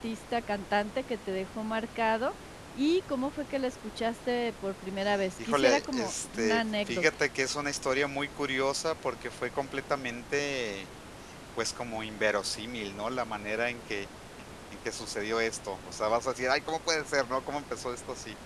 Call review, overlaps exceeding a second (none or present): present